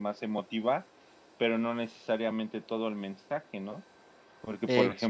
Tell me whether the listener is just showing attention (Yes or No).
Yes